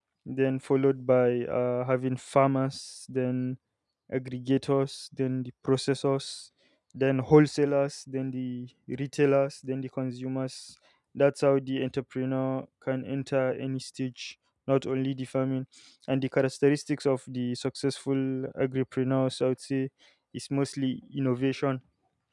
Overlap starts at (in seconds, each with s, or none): none